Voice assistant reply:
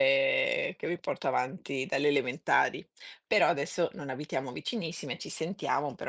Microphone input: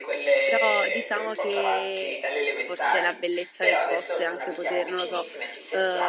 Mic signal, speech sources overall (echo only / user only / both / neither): both